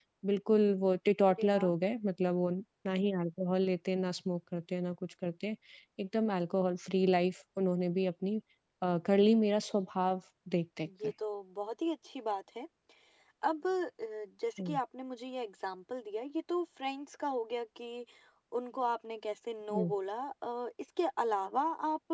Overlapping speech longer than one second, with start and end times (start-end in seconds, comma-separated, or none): none